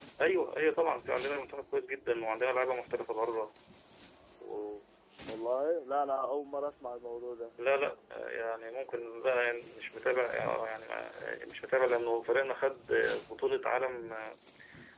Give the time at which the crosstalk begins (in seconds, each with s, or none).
none